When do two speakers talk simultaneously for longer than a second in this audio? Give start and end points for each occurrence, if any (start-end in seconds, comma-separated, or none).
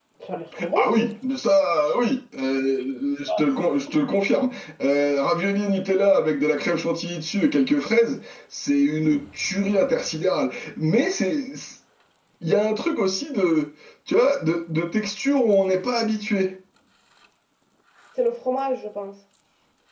none